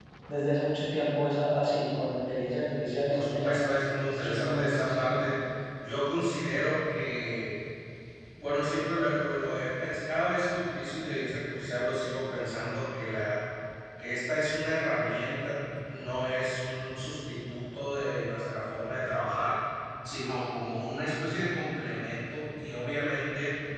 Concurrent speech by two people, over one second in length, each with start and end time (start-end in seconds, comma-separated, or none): 4.1-5.3